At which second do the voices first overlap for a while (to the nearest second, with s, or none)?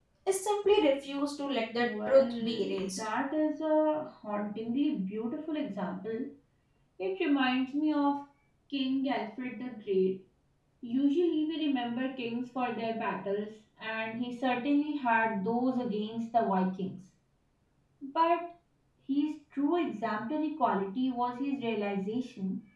2 s